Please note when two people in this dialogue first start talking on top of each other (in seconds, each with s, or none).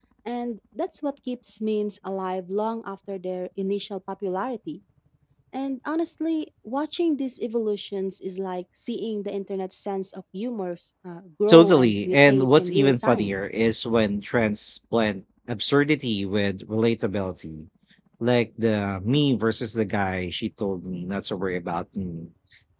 11.5 s